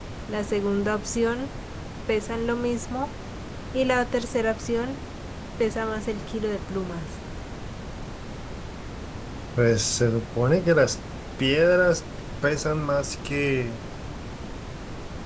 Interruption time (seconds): none

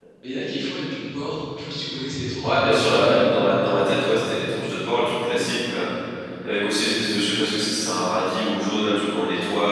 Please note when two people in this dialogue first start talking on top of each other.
2.4 s

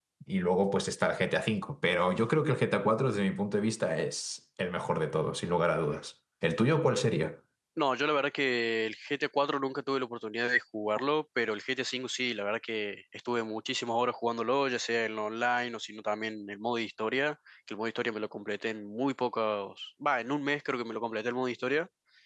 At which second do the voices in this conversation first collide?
none

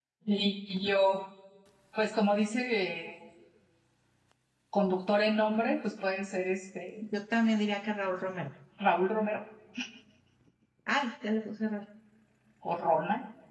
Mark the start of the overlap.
none

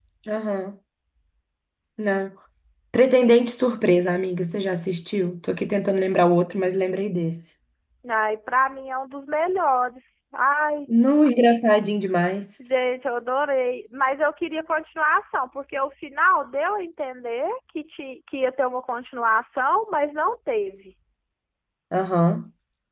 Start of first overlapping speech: none

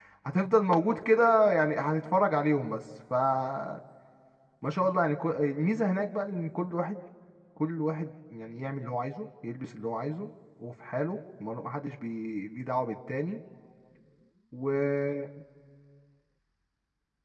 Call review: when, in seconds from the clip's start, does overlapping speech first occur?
none

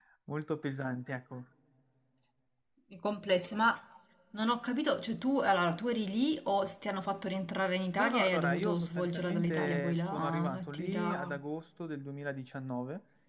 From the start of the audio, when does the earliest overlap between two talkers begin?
8.0 s

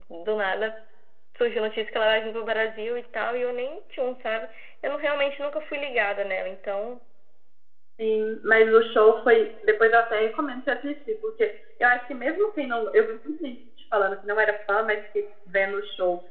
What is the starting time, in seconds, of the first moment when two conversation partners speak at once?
none

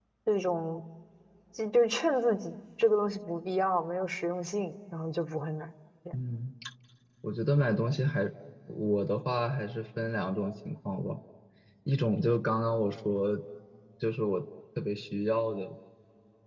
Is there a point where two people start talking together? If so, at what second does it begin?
none

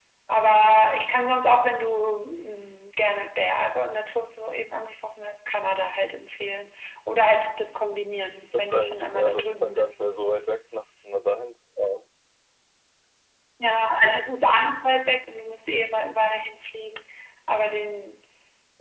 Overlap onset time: 8.5 s

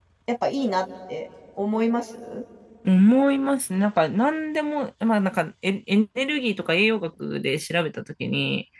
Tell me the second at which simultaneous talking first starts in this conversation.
none

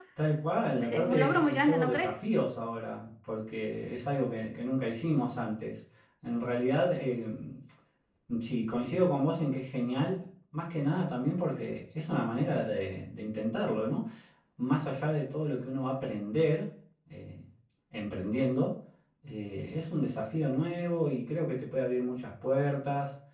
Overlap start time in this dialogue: 0.8 s

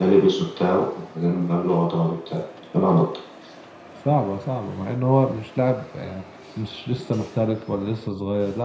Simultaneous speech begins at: none

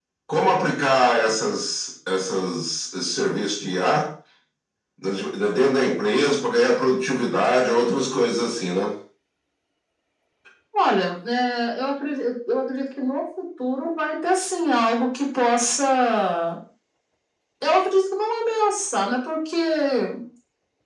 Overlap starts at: none

